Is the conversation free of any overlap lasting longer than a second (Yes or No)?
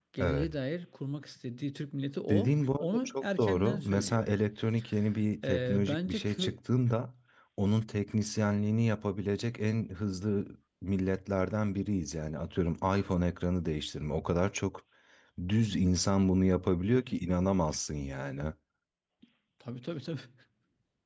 No